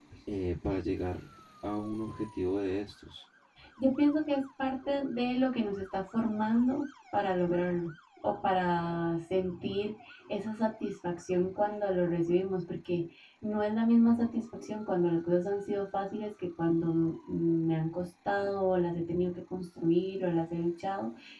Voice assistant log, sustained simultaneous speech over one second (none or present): none